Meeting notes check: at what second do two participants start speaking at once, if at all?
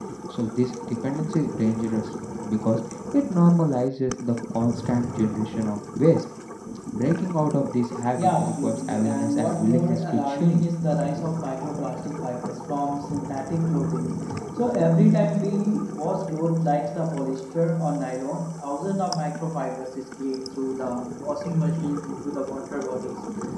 8.2 s

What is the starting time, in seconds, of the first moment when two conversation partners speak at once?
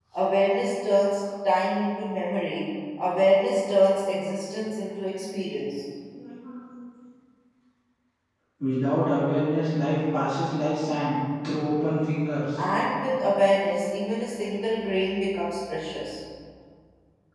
none

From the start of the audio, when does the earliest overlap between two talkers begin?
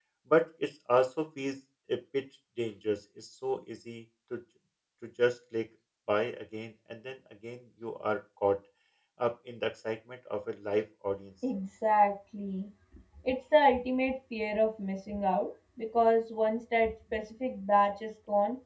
none

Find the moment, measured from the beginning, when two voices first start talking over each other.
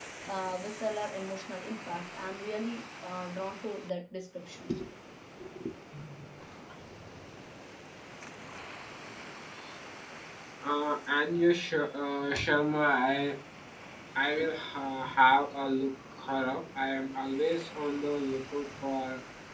none

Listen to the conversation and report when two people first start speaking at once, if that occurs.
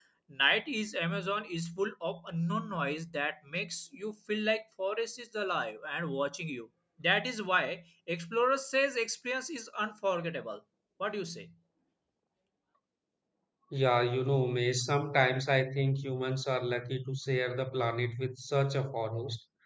none

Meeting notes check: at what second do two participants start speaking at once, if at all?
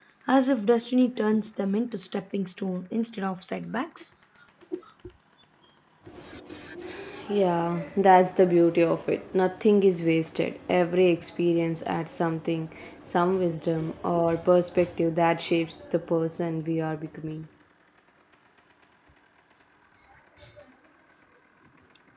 none

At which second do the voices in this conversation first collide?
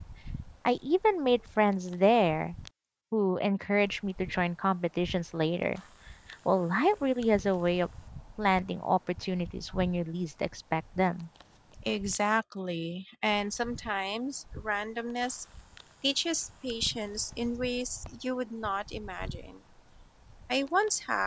none

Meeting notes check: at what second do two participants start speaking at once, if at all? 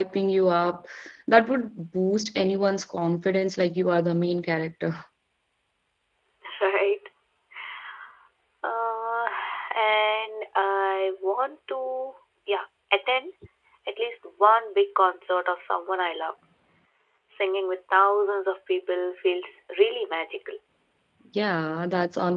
none

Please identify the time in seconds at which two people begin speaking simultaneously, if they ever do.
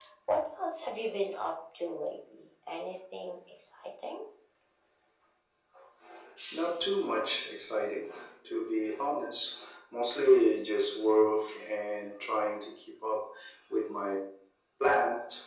none

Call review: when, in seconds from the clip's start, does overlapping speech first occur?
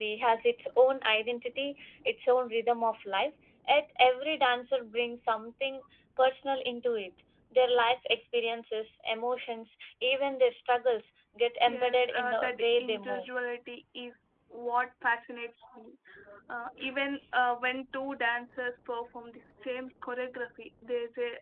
11.7 s

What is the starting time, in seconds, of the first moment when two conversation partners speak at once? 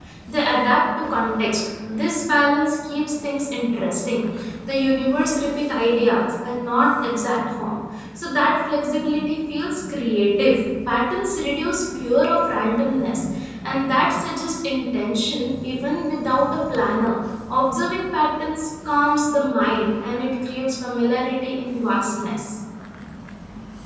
none

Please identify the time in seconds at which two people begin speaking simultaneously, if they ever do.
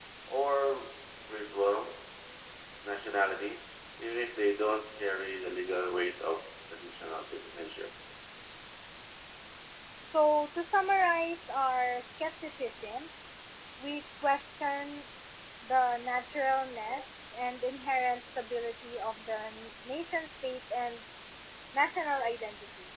none

